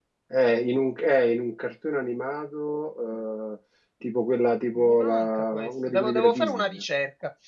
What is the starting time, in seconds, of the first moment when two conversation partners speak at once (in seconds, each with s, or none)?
4.8 s